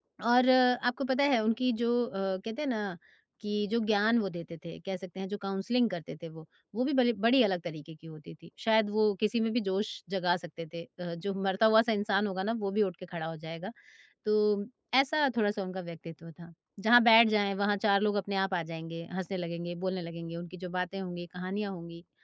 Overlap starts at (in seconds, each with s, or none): none